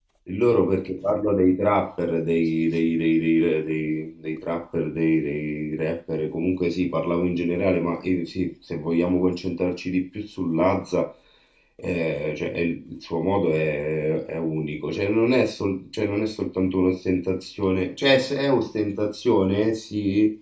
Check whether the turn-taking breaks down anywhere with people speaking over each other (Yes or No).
No